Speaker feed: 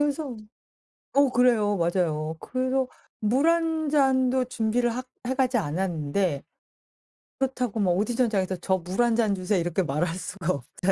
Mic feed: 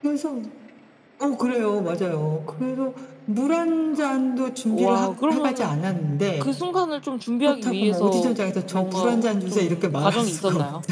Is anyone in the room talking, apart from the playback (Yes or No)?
Yes